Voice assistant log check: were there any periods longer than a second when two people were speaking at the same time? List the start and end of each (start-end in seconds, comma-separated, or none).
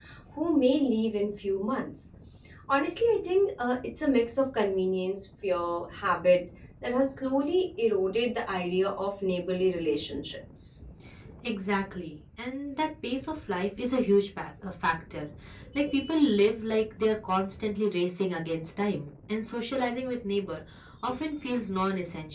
none